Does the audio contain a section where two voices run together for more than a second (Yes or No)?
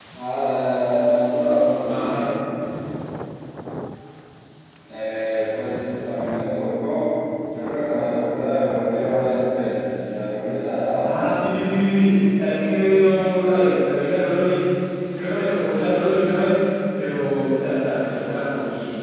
No